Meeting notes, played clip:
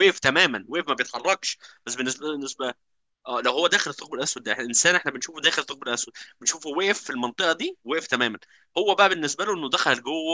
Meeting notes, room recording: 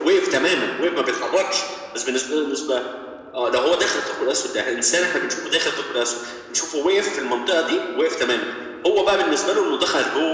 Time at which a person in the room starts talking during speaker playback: none

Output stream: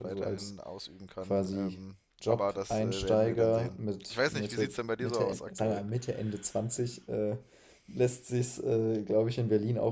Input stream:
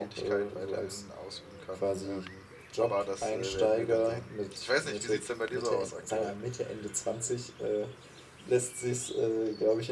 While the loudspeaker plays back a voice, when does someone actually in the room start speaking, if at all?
none

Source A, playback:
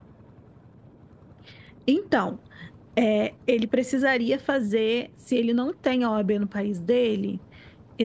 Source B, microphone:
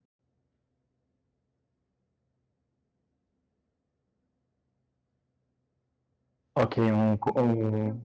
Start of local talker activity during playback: 6.5 s

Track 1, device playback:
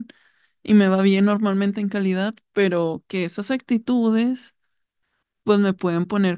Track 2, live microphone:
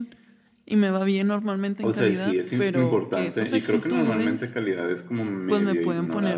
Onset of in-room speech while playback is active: 1.8 s

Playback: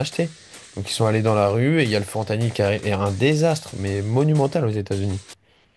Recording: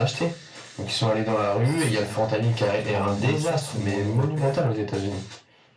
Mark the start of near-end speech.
1.6 s

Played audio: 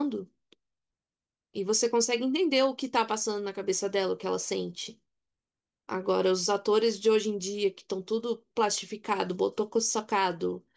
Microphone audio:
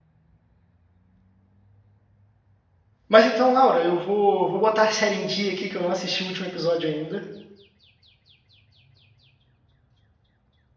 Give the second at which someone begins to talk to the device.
3.1 s

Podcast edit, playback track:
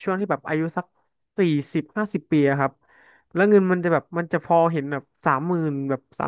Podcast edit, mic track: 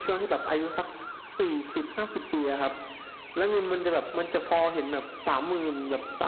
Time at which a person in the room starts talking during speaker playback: none

